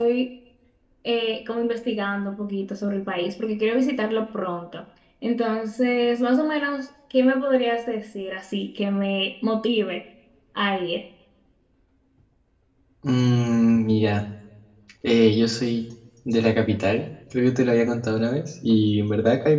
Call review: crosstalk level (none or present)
none